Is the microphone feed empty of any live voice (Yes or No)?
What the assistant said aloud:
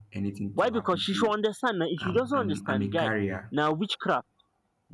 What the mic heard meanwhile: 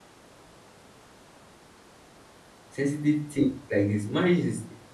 No